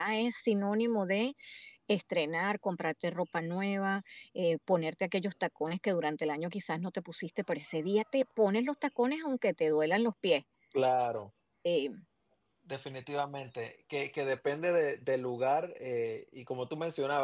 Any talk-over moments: No

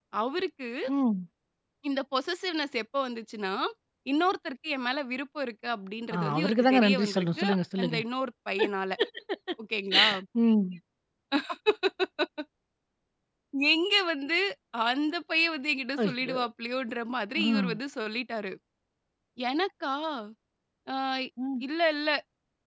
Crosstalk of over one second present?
Yes, from 6.1 s

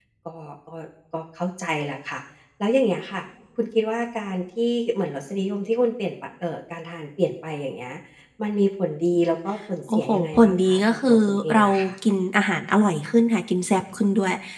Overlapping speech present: Yes, from 9.9 s

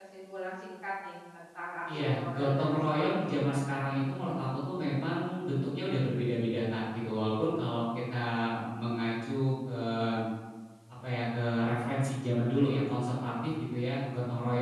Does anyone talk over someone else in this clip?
Yes, from 1.9 s

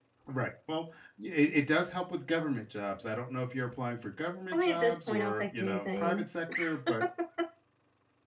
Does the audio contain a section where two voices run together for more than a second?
Yes, from 4.5 s

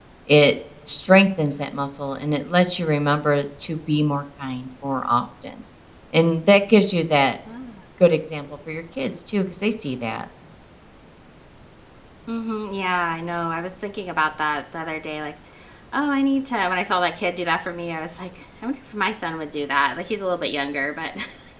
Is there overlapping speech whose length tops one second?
No

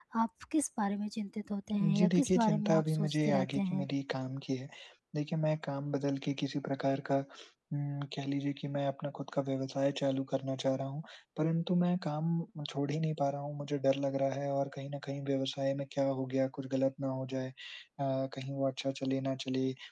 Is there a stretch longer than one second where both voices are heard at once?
Yes, from 2.0 s

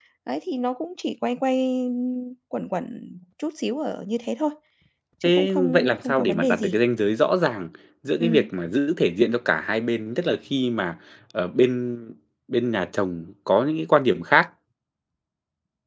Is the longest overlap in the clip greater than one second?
Yes, from 5.2 s

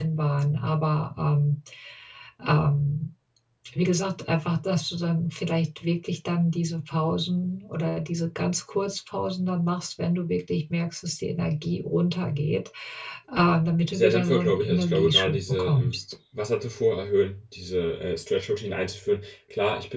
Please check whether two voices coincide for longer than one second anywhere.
Yes, from 13.9 s

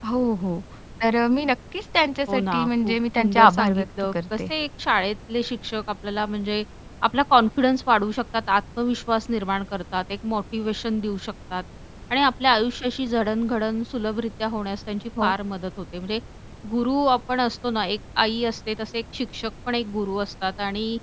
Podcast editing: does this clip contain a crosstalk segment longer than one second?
Yes, from 2.3 s

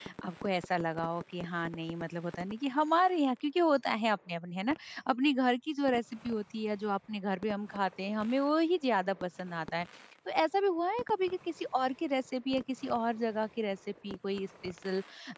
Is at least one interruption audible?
No

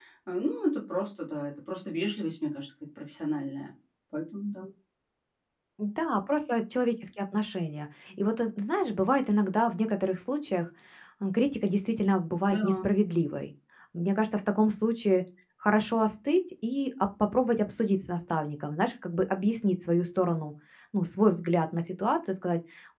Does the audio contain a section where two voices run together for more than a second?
No

